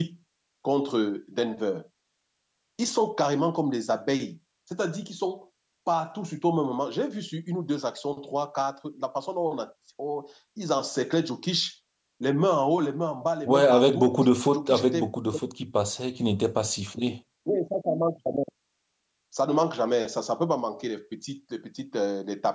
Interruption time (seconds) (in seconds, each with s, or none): 13.4 s